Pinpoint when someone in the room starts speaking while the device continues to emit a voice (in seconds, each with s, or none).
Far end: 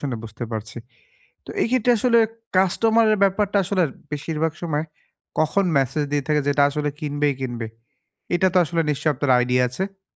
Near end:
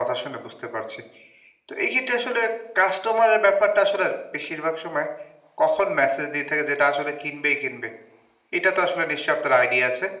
none